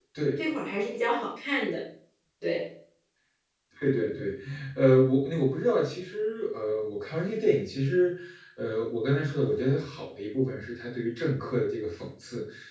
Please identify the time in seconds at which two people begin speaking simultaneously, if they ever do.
none

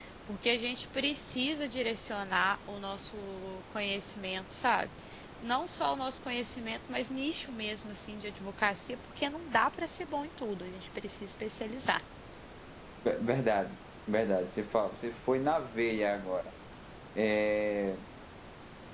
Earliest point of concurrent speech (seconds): none

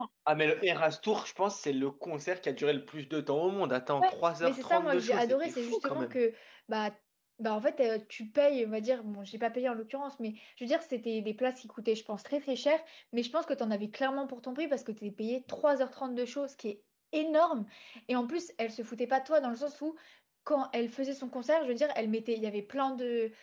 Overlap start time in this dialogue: 4 s

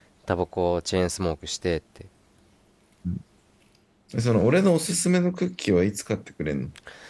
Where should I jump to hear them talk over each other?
none

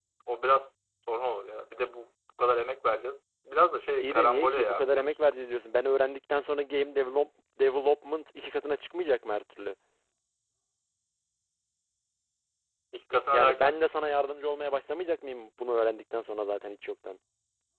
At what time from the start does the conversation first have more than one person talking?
4 s

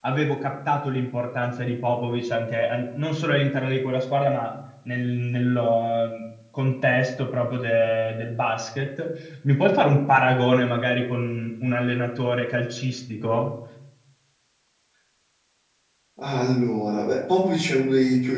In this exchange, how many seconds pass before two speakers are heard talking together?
none

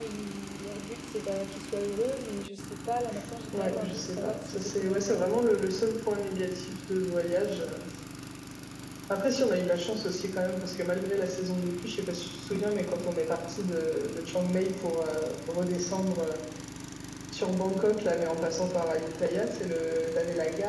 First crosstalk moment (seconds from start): 4 s

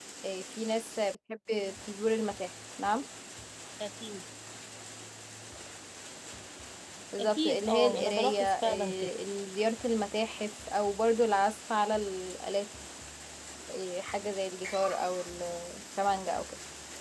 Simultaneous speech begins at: 7 s

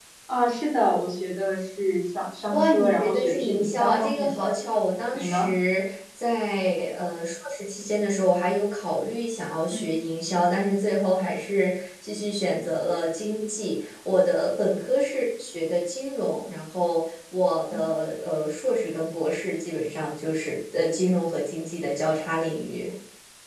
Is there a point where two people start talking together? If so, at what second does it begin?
3 s

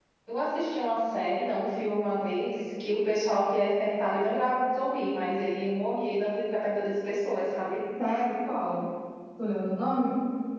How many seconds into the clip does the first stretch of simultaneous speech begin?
none

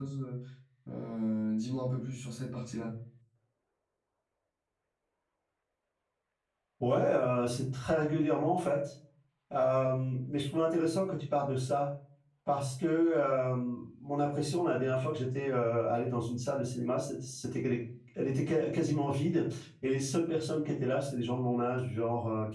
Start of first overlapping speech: none

